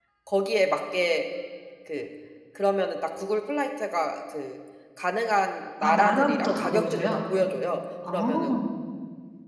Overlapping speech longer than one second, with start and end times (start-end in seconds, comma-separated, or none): 5.8-7.2